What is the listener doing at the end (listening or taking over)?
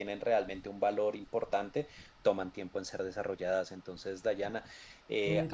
listening